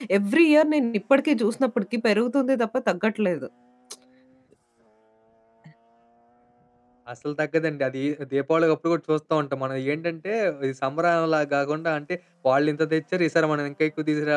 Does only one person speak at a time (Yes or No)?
Yes